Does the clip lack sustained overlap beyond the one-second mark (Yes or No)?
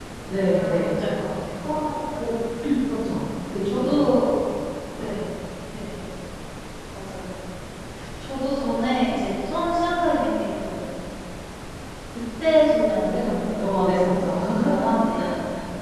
No